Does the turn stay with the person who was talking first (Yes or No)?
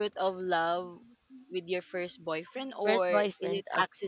Yes